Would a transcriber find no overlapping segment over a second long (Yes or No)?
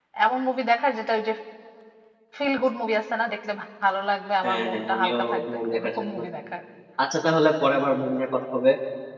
No